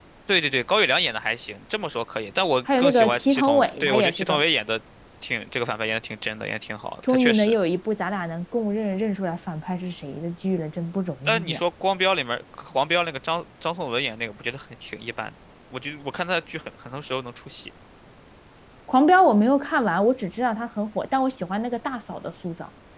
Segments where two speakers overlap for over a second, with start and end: 2.8-4.4

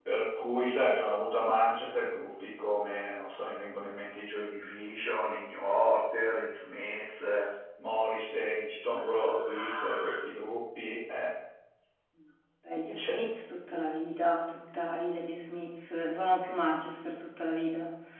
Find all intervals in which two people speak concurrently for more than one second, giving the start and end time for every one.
8.9-10.2

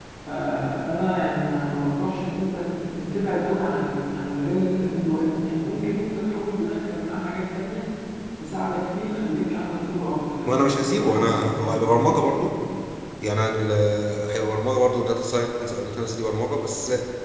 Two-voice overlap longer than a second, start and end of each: 10.4-12.2

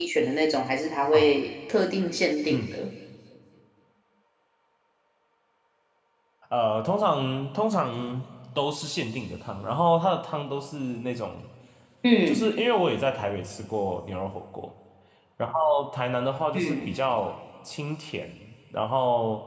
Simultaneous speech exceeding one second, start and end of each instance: none

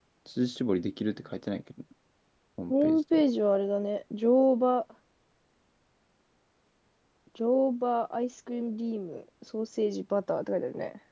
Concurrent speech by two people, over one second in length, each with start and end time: none

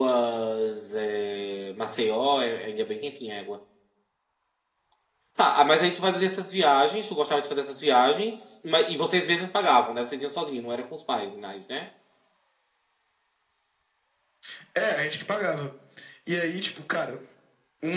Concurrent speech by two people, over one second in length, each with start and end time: none

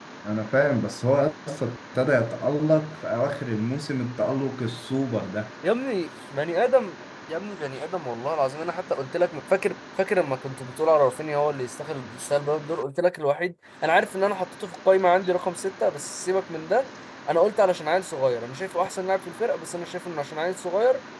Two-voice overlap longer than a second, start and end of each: none

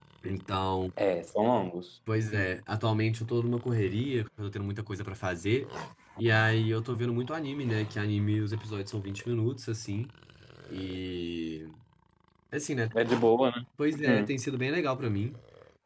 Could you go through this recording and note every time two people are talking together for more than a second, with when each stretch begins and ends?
none

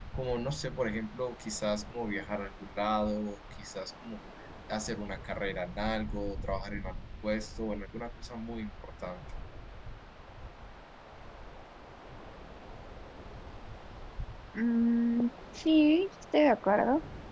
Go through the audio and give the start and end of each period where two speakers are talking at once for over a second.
none

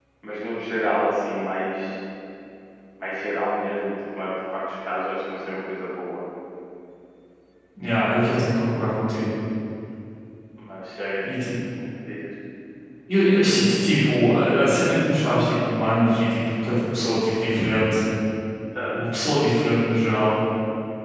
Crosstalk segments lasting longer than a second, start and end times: none

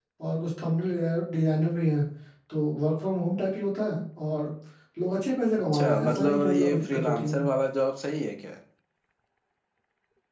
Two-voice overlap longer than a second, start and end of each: 5.7-7.5

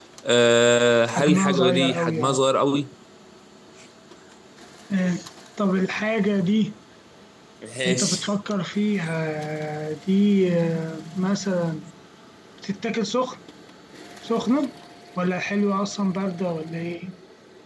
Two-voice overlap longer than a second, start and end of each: 1.1-2.4

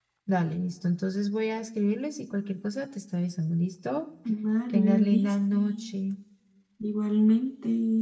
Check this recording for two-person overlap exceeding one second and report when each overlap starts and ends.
4.7-6.0

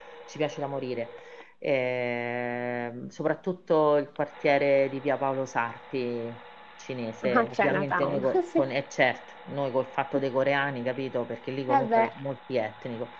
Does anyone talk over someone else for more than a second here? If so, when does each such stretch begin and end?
7.2-8.7

